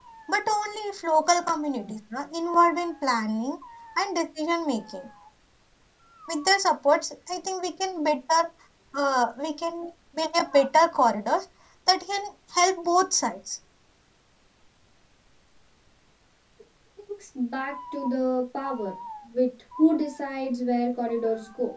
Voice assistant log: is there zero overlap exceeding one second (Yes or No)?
Yes